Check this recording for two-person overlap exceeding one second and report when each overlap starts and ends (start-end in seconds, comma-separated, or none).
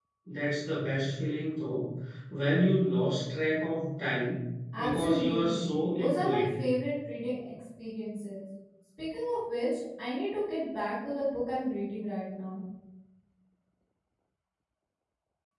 4.8-6.5